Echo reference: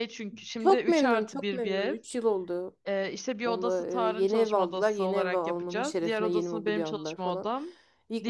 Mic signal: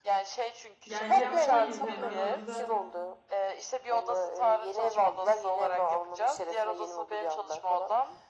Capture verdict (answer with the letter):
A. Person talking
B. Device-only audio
A